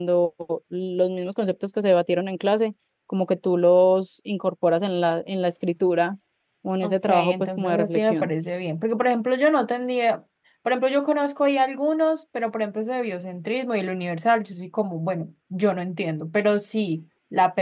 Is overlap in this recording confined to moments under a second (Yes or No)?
No